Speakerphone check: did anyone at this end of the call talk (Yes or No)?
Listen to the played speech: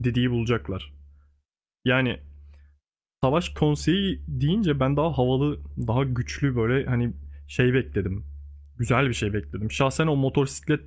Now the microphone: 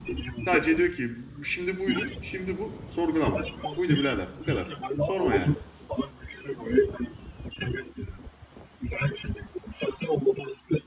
Yes